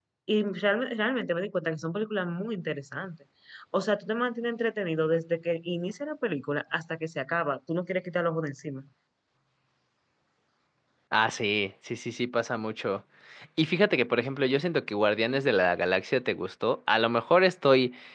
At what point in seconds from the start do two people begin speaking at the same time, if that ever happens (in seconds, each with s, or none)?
none